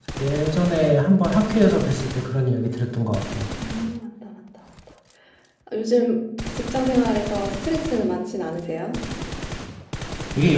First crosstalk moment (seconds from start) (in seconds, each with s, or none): none